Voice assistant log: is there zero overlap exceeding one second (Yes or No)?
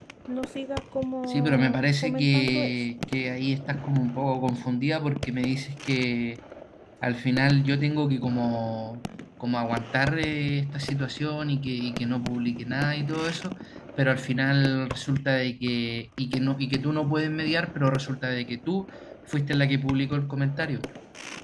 No